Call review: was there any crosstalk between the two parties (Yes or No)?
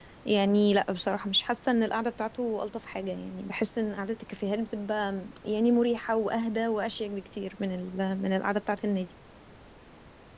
No